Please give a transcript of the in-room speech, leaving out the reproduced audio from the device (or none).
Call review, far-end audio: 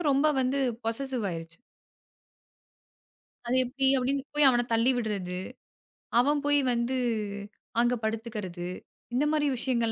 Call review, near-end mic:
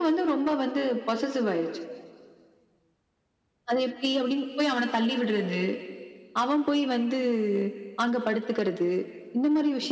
none